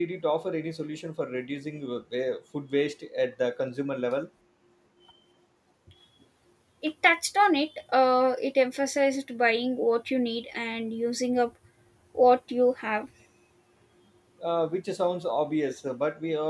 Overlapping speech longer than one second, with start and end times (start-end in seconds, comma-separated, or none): none